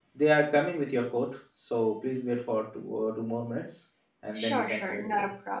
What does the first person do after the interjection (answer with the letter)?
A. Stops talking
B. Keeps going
A